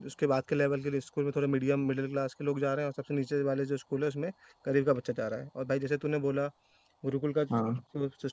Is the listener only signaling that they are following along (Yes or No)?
Yes